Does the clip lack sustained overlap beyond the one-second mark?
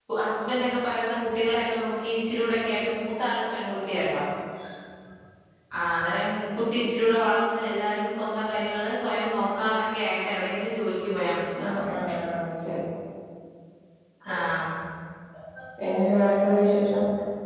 Yes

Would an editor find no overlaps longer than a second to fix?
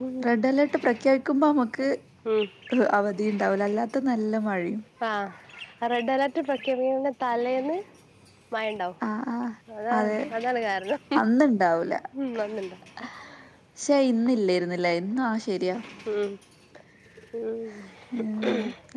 Yes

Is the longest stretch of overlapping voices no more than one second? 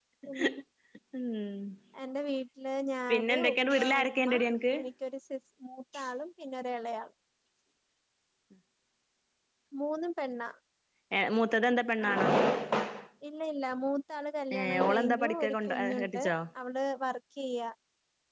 No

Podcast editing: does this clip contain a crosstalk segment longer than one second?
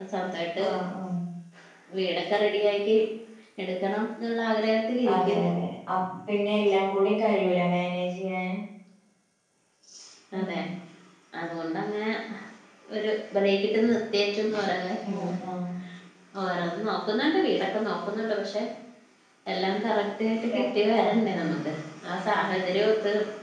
No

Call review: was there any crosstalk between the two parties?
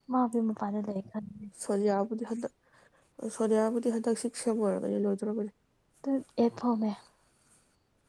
No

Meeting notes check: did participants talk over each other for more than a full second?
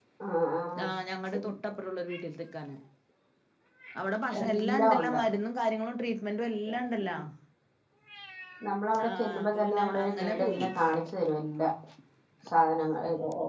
Yes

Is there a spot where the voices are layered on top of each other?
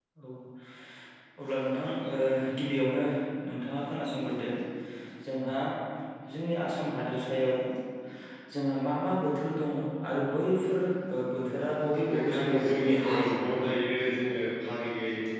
Yes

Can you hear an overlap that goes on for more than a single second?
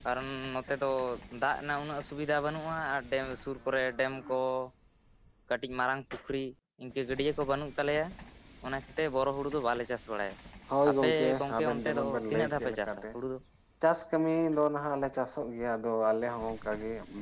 Yes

